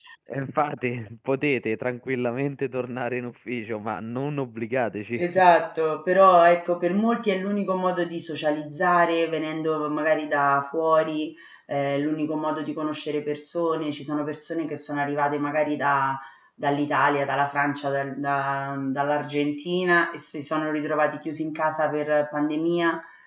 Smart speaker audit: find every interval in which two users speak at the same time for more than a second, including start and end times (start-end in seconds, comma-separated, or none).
none